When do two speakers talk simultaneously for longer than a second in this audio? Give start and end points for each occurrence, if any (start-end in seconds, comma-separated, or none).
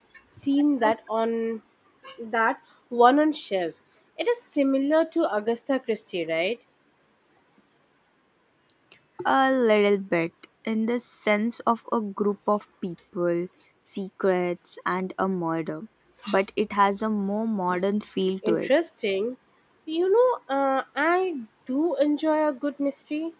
none